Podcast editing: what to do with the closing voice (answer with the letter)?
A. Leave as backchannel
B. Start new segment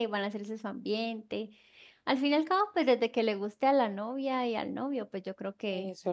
B